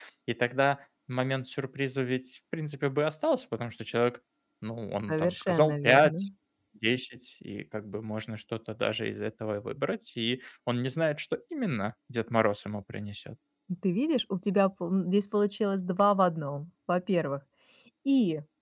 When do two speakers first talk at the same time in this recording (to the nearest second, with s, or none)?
5 s